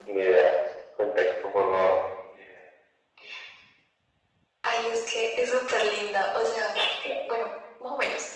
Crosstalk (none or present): none